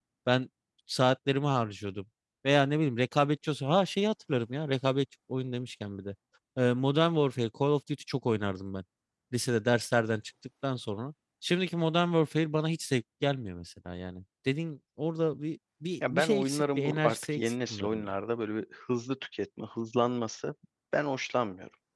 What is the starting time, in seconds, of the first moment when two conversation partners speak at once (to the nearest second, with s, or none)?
16 s